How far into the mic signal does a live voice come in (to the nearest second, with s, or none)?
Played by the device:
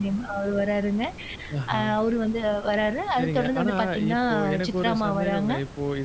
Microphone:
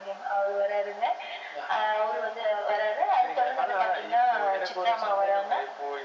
none